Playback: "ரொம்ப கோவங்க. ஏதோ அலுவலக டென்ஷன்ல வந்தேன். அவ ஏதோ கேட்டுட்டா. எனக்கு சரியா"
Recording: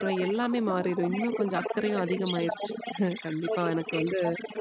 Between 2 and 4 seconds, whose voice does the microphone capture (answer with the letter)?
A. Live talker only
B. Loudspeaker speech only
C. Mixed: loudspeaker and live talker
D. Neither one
C